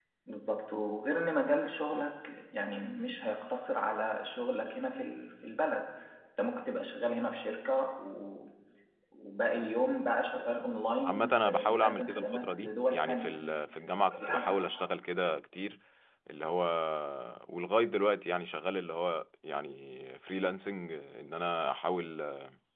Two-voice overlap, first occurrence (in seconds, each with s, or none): 11.1 s